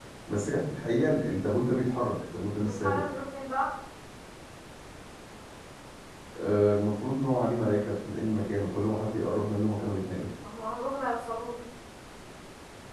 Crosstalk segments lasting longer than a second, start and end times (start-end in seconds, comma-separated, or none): none